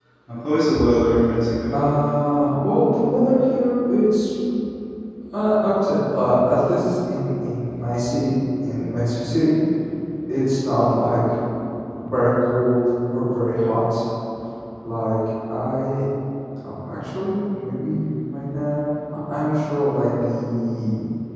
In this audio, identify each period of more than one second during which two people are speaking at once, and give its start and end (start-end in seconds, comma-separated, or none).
none